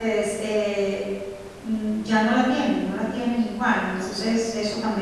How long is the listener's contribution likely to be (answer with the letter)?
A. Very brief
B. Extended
A